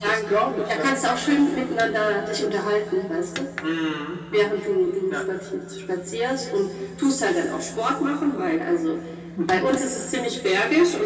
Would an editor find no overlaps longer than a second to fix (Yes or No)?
Yes